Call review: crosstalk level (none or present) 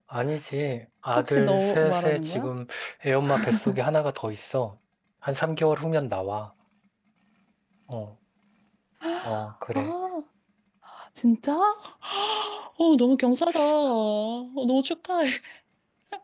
present